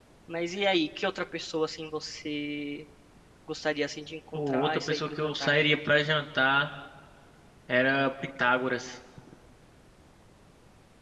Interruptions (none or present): present